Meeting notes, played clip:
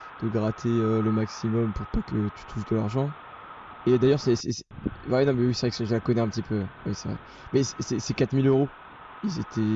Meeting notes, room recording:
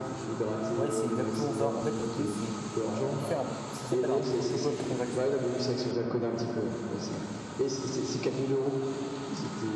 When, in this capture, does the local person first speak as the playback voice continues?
1 s

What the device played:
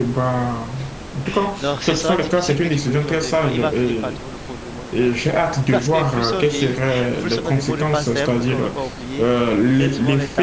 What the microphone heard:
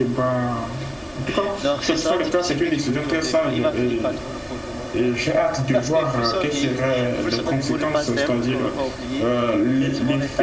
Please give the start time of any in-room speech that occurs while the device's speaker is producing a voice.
none

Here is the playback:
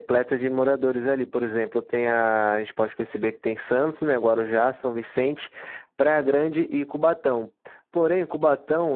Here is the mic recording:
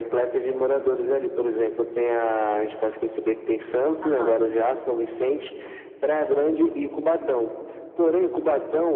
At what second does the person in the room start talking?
4 s

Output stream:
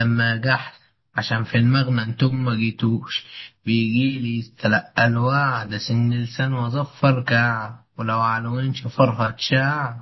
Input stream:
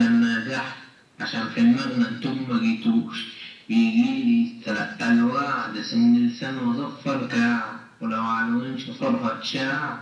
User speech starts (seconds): none

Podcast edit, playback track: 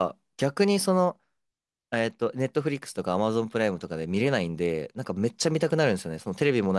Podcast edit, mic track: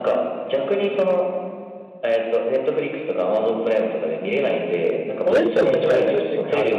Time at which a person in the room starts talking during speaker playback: 5 s

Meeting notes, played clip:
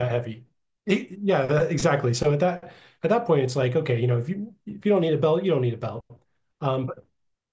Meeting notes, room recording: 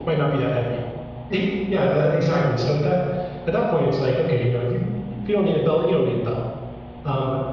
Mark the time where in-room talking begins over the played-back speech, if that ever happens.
none

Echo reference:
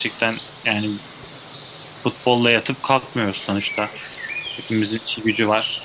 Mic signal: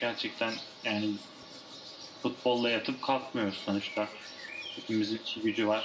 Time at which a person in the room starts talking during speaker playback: none

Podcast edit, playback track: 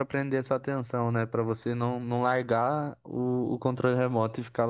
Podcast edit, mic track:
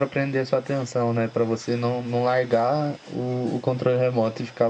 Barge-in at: none

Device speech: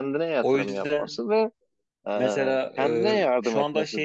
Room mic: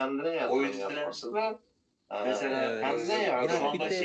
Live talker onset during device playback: 2 s

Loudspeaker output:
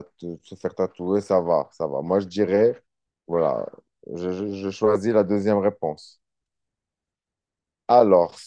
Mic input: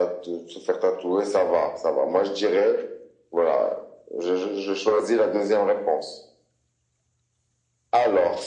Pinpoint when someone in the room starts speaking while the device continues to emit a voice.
none

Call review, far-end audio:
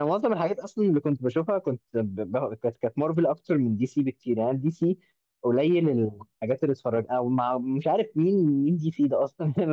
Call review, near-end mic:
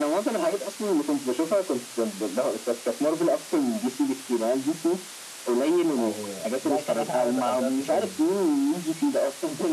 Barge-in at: 6 s

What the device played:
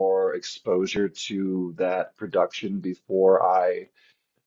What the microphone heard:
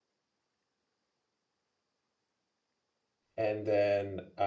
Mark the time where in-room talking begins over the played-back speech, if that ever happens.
3 s

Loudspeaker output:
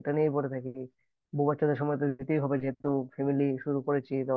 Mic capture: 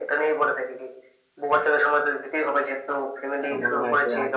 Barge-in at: 3 s

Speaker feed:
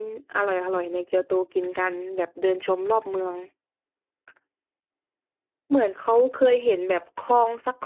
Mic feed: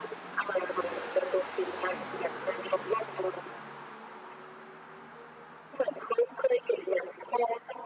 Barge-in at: none

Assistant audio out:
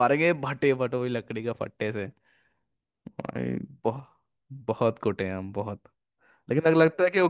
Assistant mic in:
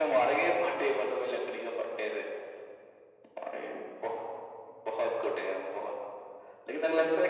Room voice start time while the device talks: none

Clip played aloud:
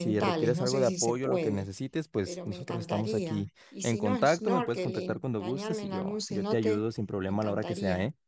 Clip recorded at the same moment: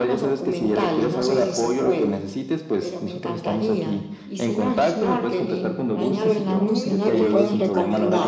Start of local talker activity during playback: 6 s

